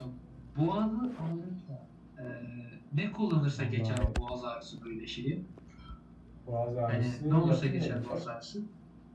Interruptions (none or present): present